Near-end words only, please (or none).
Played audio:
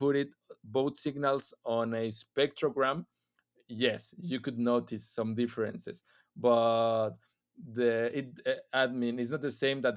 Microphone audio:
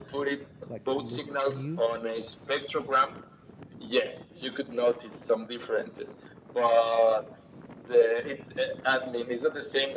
like a list new,